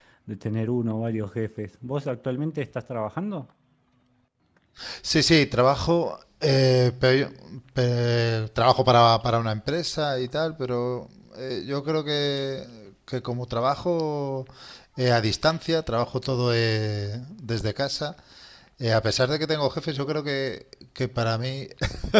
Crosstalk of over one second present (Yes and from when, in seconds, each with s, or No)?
No